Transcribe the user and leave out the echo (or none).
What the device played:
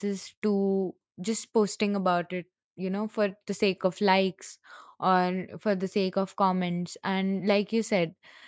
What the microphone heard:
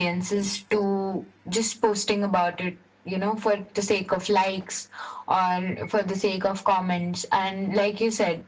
none